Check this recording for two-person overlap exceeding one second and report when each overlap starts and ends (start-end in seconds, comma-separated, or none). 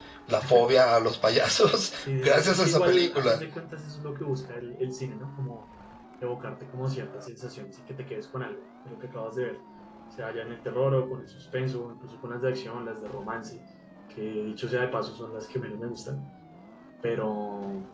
2.0-3.4